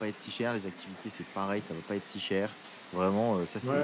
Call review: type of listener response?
taking over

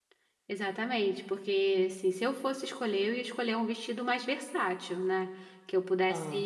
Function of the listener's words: listening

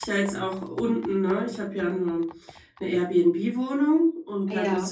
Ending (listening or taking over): listening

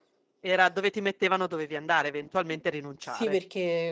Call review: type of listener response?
taking over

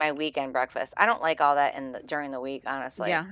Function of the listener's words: taking over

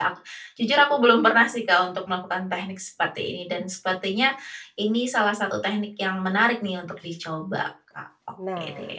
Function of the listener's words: taking over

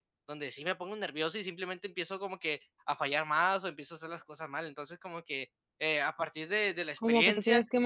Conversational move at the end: taking over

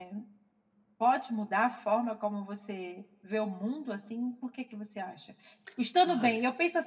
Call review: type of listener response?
listening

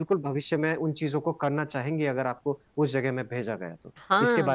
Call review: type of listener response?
taking over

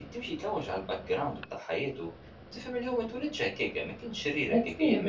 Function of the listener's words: listening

